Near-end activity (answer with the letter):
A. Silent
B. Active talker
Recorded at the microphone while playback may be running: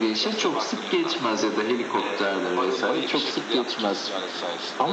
A